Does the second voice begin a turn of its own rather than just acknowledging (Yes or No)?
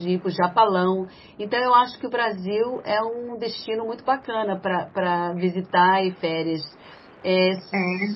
No